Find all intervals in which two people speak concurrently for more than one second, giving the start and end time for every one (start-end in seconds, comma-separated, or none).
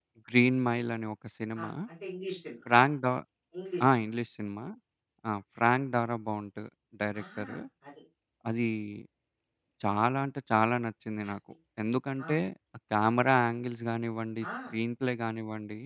none